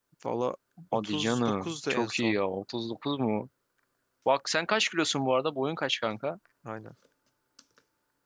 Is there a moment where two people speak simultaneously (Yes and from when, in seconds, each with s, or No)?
Yes, from 1.0 s